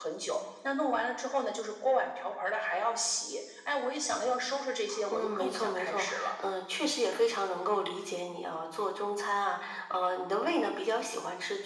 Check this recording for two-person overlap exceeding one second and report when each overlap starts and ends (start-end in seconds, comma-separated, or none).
5.1-6.3